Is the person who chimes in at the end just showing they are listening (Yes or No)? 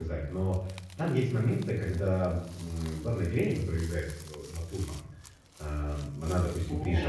Yes